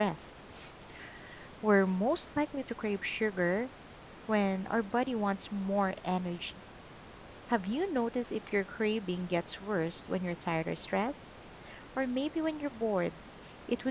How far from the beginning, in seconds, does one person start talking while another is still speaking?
none

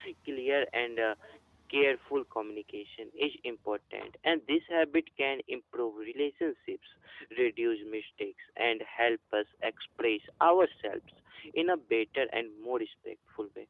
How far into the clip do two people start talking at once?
none

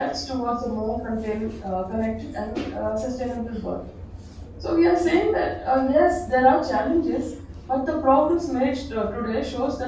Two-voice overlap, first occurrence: none

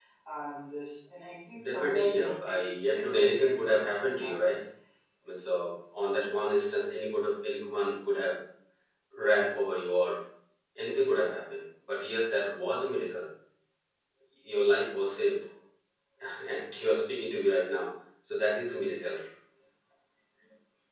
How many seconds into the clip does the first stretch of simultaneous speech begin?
1.5 s

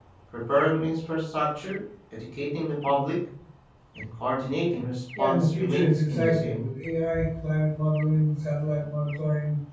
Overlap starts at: 5.2 s

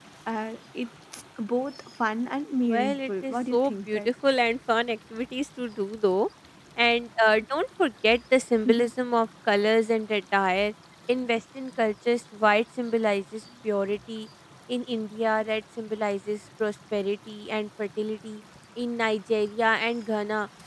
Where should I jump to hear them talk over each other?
2.7 s

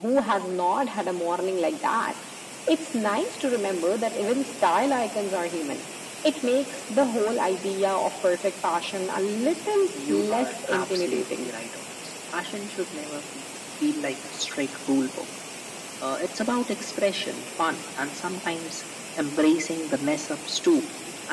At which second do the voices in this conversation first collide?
9.9 s

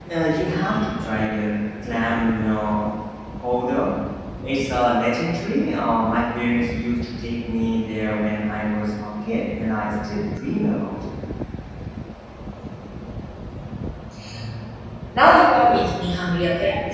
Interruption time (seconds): none

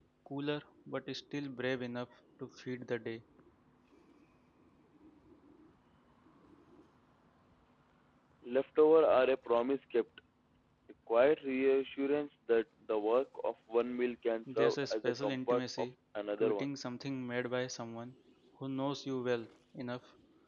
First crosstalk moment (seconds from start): 14.6 s

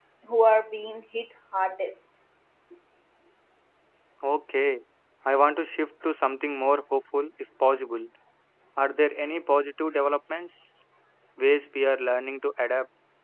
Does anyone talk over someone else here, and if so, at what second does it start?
none

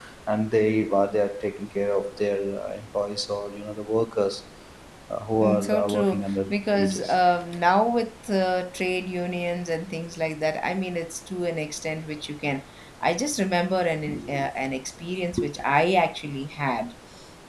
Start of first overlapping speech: 5.4 s

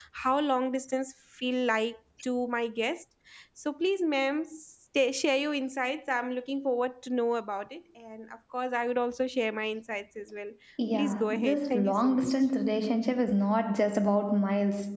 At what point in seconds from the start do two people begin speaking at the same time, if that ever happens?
10.9 s

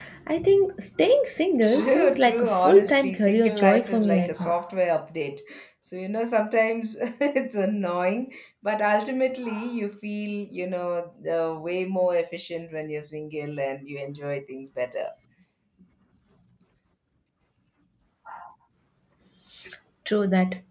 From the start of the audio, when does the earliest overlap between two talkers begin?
1.6 s

